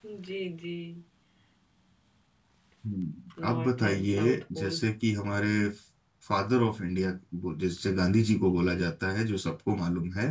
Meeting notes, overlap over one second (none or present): present